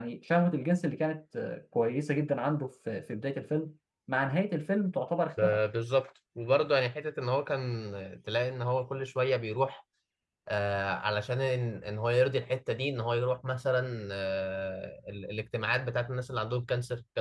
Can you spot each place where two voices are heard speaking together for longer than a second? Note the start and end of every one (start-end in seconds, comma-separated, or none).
none